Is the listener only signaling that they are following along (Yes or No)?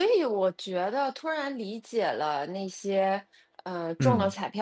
Yes